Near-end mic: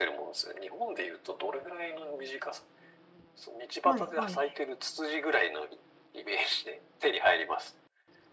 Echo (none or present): present